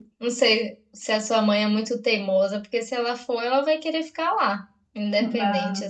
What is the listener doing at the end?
taking over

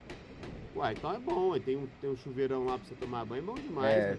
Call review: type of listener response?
taking over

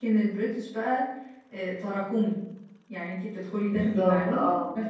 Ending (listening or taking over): listening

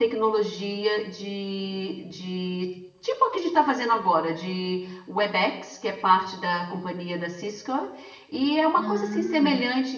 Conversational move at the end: listening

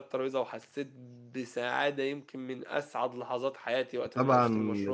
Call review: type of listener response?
taking over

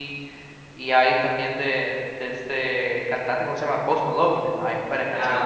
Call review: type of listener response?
taking over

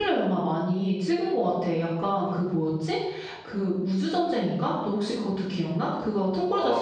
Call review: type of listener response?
taking over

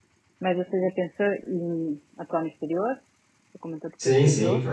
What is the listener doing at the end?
taking over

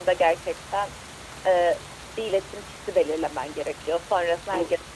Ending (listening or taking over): listening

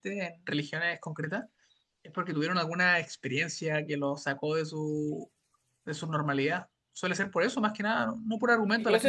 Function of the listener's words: taking over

